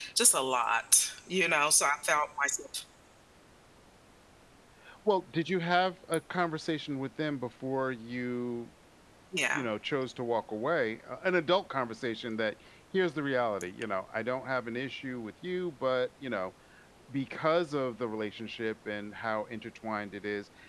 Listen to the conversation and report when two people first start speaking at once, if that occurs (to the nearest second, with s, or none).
none